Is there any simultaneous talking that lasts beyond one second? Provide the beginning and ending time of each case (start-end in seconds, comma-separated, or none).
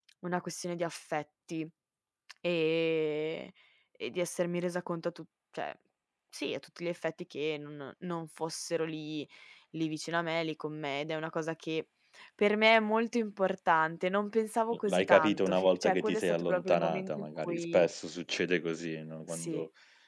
14.7-17.9